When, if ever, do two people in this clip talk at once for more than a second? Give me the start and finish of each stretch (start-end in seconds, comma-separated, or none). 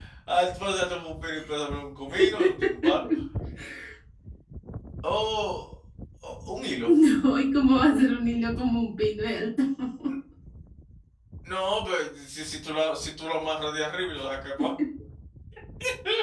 none